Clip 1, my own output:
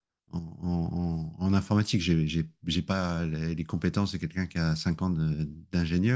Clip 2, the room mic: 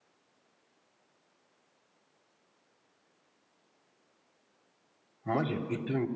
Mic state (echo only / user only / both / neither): user only